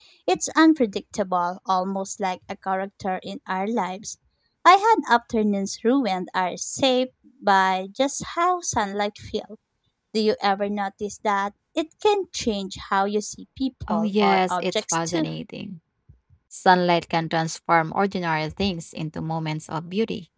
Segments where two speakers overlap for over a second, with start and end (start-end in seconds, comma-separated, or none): 13.9-15.2